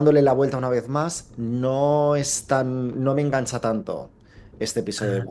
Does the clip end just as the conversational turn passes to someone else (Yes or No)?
No